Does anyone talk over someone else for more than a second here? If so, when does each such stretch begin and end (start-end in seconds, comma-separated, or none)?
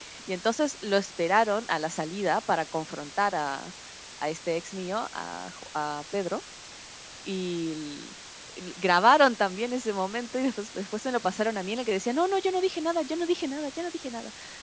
none